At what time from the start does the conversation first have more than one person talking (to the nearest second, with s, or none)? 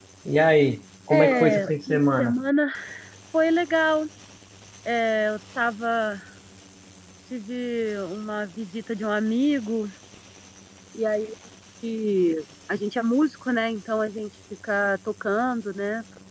1 s